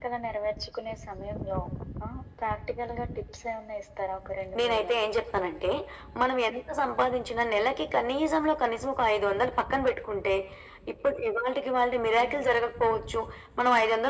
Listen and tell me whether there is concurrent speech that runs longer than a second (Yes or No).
No